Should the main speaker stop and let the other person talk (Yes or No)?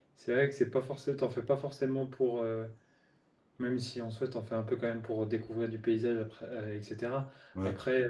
No